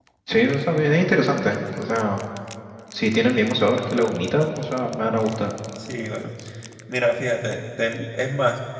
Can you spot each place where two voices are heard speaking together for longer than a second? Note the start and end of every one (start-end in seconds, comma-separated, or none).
none